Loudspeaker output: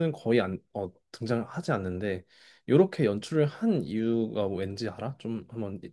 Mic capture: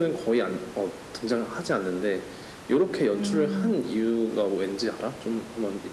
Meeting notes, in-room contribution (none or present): present